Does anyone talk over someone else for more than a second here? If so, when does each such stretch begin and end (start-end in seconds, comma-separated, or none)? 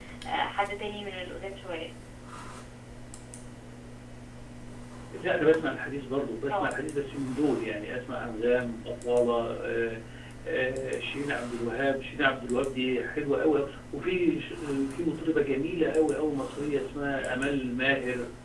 none